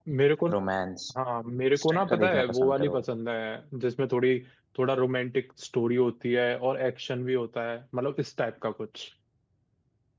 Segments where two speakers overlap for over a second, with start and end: 1.7-3.0

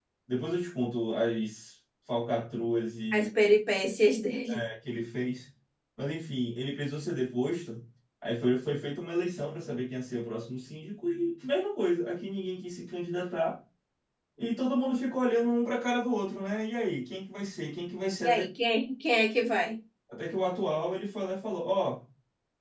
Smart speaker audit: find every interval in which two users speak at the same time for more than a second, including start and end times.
none

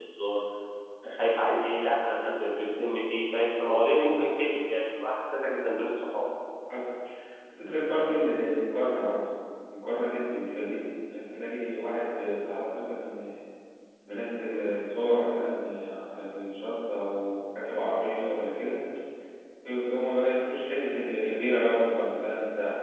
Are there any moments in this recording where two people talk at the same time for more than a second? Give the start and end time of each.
none

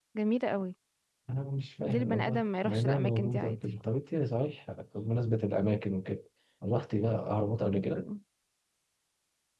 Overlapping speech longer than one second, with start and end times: 1.9-3.6

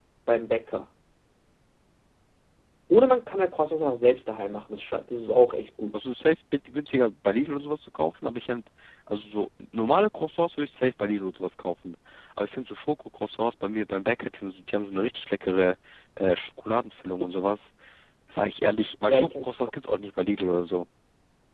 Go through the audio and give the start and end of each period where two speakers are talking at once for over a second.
none

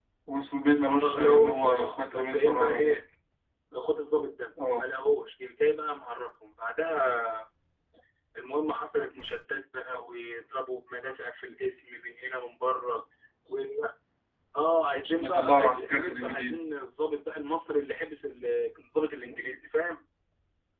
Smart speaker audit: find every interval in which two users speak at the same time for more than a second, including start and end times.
1.0-3.0, 15.0-16.6

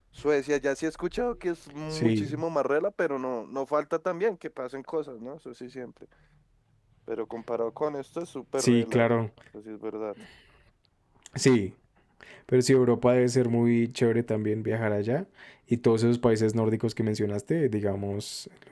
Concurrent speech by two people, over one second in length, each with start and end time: none

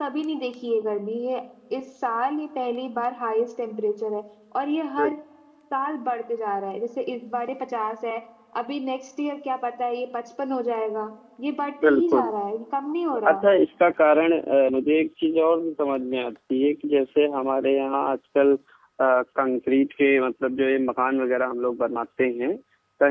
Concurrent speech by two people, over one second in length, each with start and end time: none

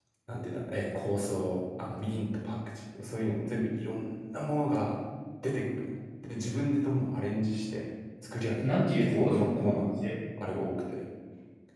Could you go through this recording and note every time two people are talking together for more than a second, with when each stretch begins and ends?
8.6-9.9

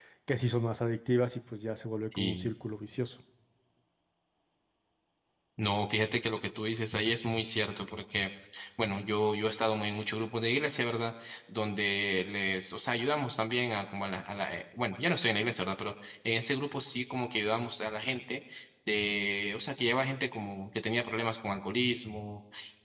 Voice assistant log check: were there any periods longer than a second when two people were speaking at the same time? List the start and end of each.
none

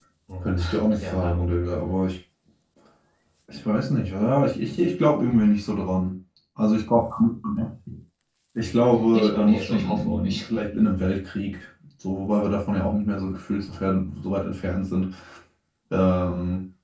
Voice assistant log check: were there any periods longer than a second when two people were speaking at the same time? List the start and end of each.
9.1-10.4

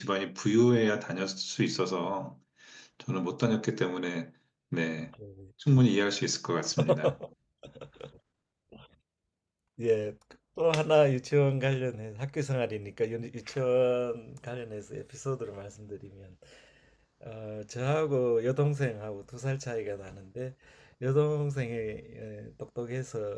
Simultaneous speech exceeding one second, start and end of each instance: none

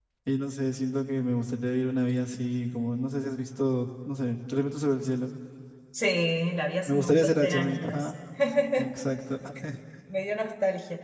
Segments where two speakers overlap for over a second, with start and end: 6.9-8.1

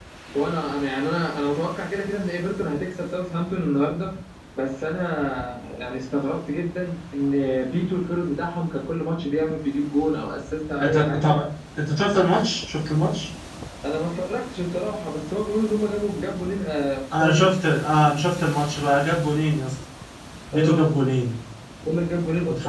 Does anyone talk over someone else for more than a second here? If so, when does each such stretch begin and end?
none

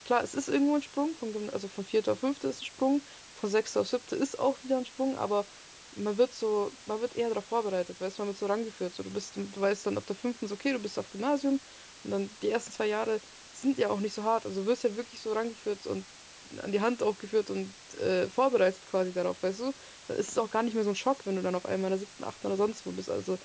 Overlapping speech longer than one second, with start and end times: none

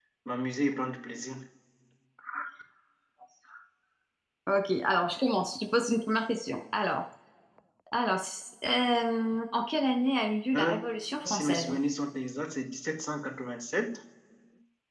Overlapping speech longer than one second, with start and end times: none

